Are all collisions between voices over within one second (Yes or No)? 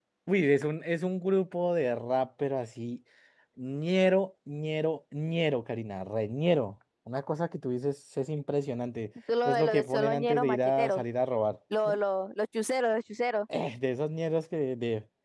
No